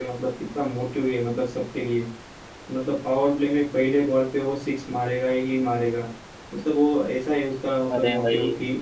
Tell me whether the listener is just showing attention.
Yes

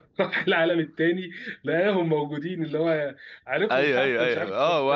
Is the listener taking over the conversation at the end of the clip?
Yes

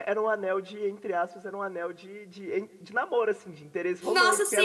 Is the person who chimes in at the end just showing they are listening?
No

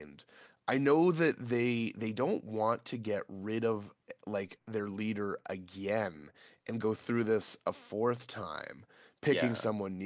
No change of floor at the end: Yes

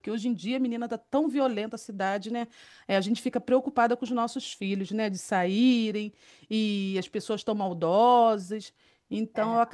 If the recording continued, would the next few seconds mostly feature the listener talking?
No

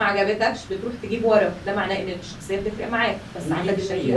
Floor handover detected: Yes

